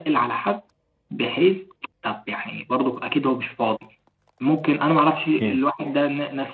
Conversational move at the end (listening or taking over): listening